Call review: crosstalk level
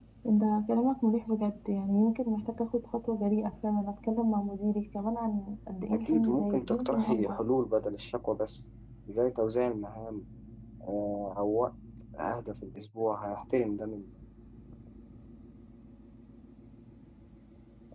present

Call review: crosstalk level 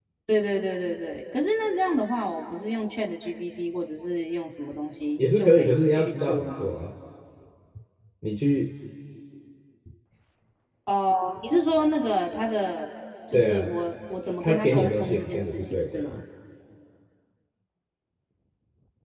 present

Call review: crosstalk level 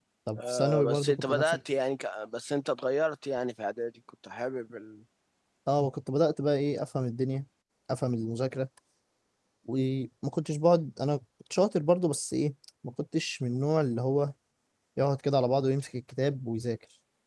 present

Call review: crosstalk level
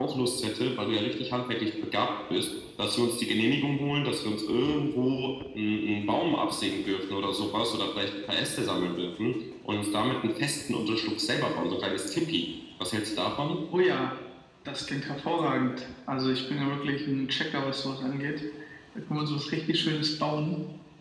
none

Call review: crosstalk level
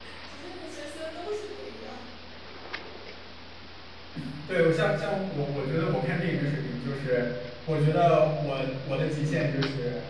none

